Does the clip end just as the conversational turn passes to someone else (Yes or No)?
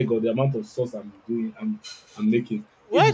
Yes